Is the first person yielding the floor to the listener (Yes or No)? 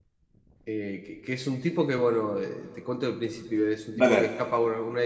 No